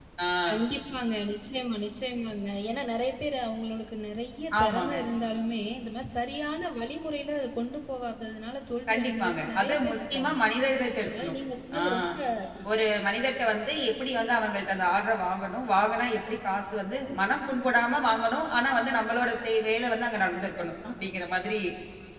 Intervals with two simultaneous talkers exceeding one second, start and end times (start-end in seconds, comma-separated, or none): 8.9-10.3